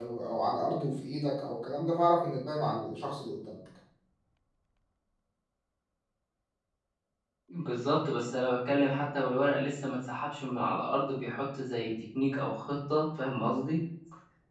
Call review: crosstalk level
none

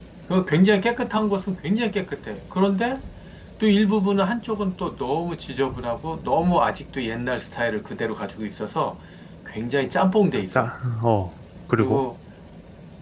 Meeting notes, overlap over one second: none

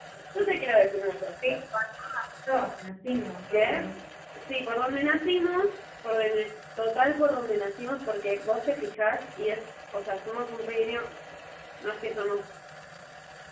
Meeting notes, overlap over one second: none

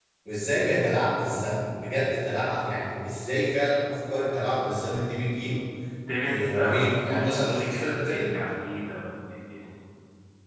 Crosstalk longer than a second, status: present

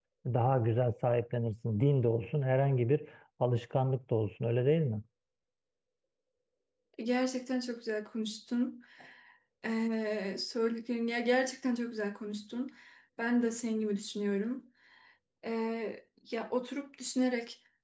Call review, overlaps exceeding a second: none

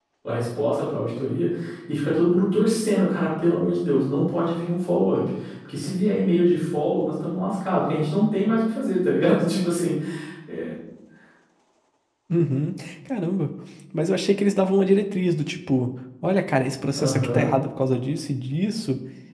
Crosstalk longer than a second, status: none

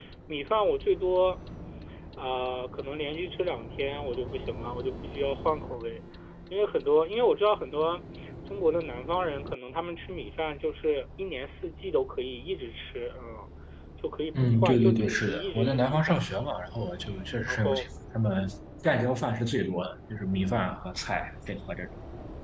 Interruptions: present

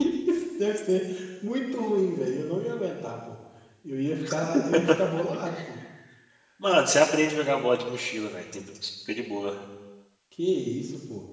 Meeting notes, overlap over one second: none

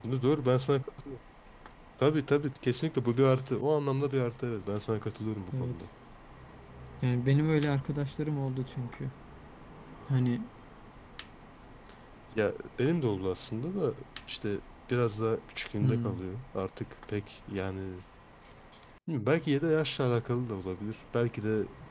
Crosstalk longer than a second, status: none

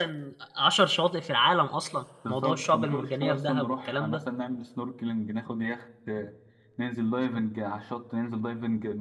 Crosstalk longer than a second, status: present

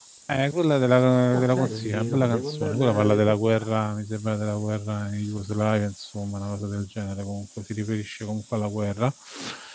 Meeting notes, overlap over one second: present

